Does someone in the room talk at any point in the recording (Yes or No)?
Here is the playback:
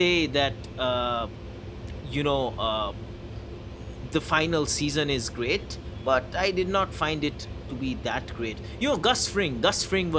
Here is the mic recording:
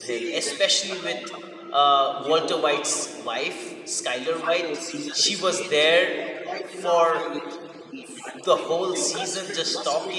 Yes